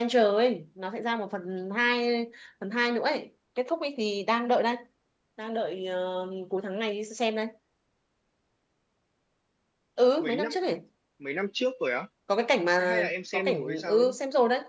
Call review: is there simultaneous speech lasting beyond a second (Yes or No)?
Yes